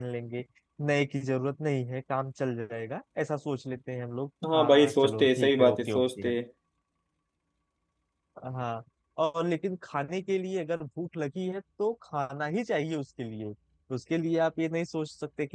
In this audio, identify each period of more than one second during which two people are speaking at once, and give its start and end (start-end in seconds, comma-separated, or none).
4.5-6.3